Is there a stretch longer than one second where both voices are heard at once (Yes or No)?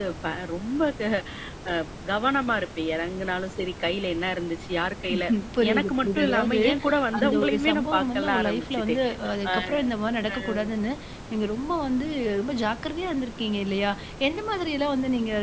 Yes